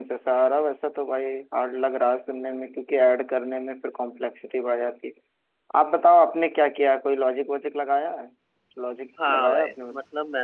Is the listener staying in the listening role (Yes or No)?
No